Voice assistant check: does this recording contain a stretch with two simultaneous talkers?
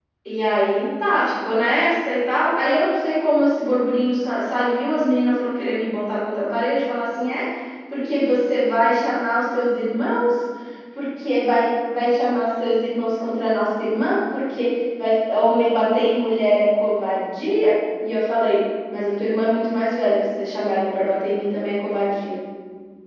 No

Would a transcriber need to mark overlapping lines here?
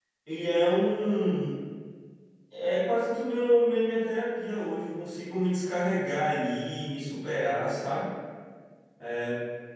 No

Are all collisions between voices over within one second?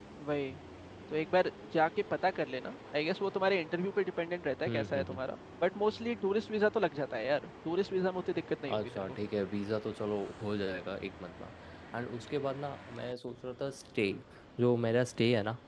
Yes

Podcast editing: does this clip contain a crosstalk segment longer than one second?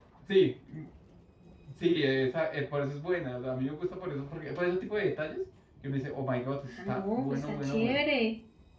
Yes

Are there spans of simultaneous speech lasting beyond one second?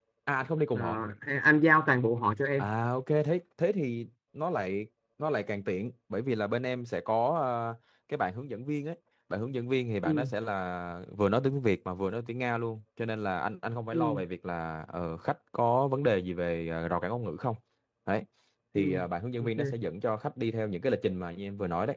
No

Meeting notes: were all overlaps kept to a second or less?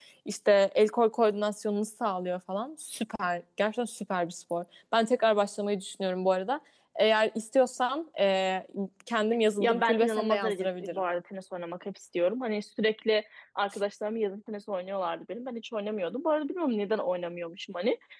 No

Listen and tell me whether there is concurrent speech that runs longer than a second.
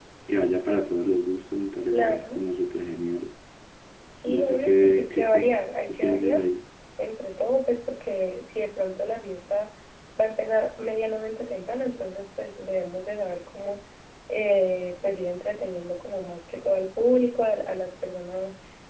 Yes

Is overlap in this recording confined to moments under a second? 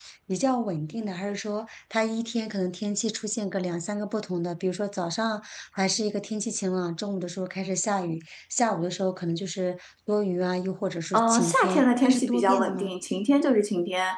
No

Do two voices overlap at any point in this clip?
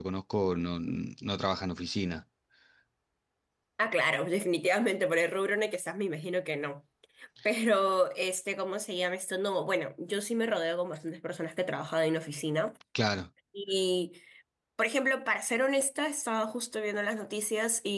No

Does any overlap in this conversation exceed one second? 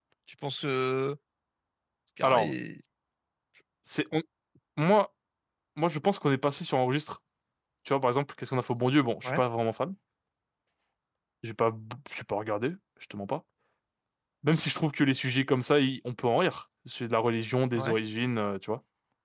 No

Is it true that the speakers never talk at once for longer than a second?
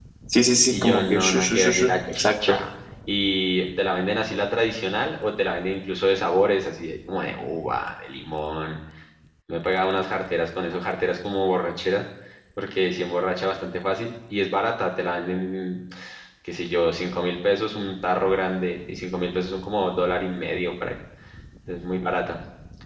No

